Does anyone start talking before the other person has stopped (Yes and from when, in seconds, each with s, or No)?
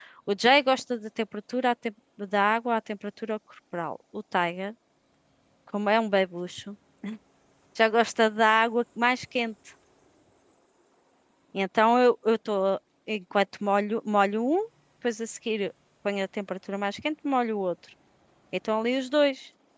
No